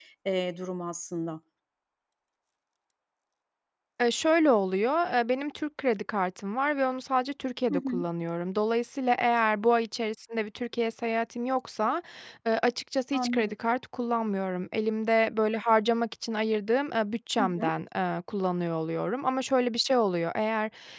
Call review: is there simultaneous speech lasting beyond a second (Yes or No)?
No